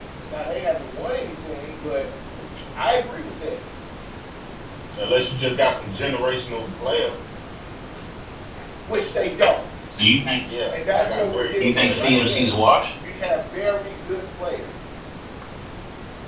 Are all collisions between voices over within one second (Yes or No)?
No